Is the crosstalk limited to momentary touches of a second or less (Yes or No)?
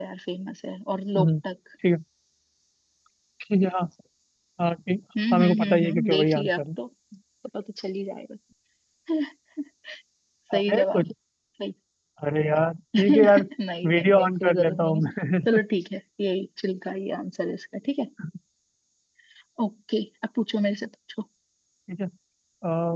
No